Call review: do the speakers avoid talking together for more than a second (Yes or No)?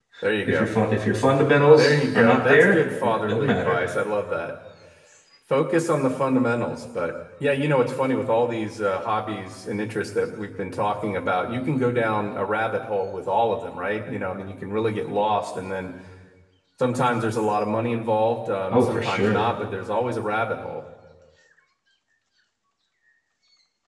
No